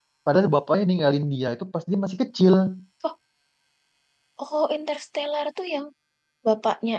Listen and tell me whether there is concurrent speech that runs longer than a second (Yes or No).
No